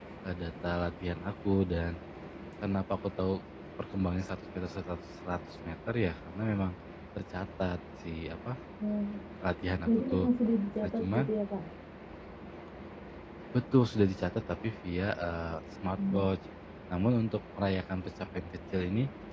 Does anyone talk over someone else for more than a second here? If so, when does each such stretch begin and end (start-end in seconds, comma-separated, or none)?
none